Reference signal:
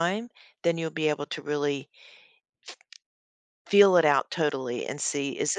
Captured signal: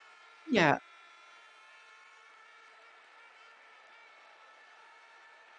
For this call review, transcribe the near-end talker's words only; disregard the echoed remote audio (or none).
Yeah.